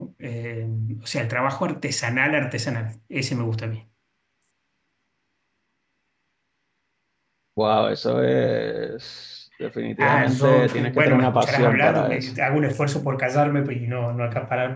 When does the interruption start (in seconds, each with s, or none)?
10.0 s